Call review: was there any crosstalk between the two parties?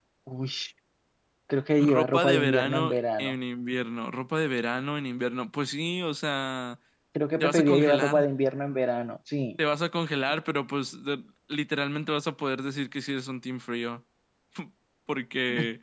Yes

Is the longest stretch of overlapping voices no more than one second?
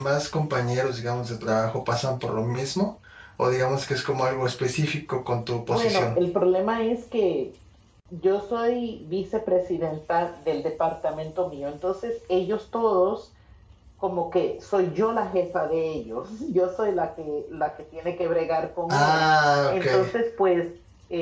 Yes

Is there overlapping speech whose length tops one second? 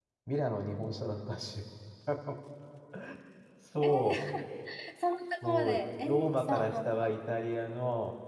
Yes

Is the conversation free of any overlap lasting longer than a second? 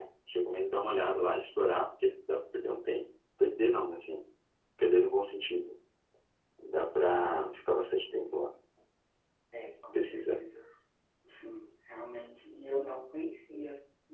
Yes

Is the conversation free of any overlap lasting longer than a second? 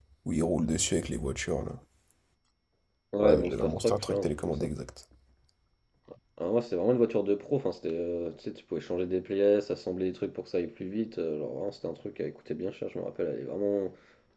No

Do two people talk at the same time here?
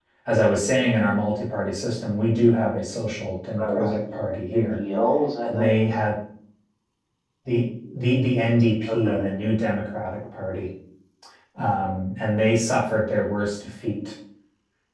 Yes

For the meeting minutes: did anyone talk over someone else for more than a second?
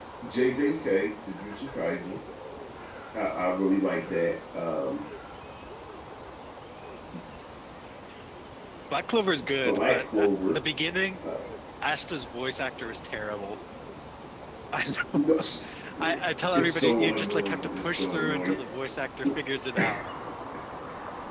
Yes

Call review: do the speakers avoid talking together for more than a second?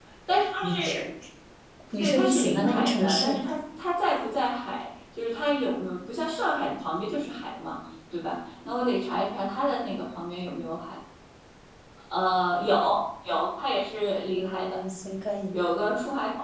No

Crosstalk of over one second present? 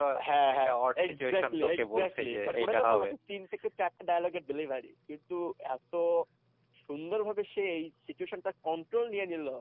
Yes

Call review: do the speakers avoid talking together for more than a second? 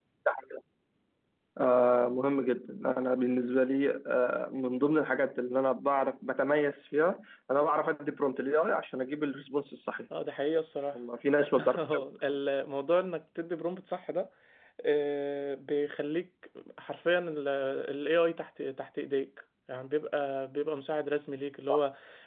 Yes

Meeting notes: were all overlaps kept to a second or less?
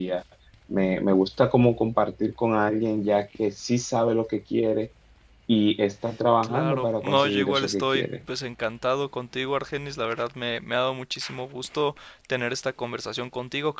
No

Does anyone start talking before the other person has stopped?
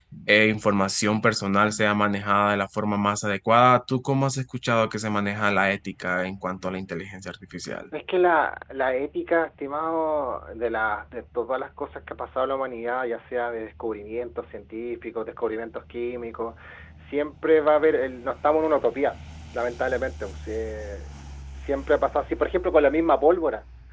No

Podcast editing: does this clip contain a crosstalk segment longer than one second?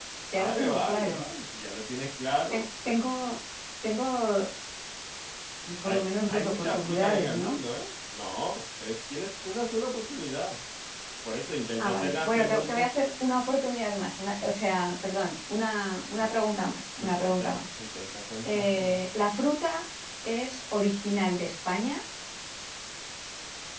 Yes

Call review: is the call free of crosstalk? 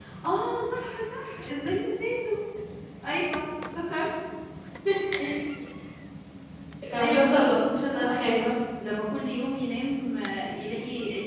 No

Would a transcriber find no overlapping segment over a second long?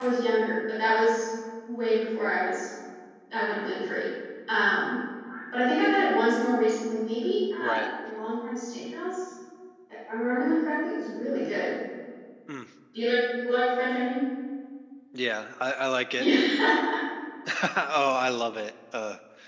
Yes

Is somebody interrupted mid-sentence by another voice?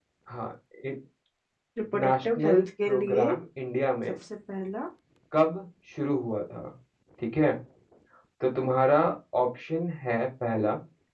Yes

